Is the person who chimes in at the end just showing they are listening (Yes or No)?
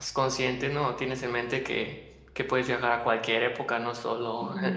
Yes